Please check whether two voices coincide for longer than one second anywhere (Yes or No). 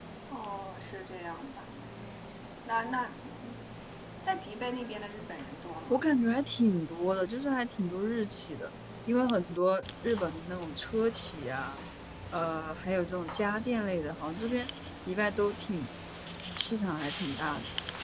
No